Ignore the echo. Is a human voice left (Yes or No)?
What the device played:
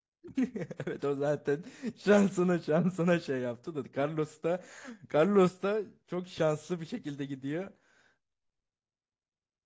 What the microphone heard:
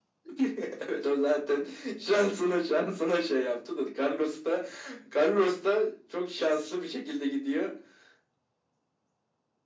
No